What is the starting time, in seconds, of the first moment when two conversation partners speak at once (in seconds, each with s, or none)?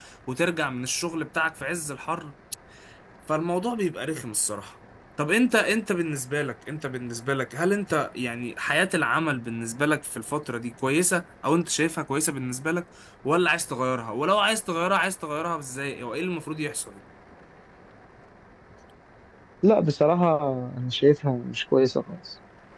none